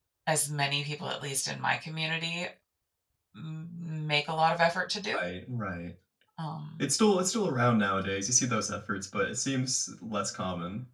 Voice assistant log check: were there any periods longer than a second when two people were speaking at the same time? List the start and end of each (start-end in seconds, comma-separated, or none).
none